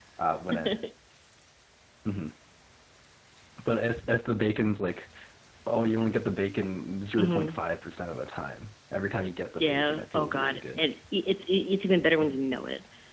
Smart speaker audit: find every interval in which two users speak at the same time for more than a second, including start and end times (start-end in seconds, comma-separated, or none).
9.6-10.8